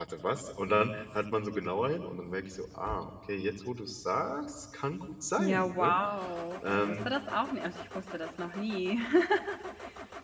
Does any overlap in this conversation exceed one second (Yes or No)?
No